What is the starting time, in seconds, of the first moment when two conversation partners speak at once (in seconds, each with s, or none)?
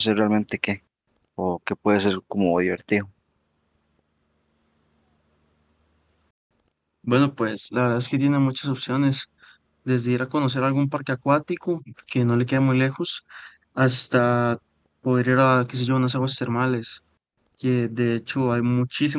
none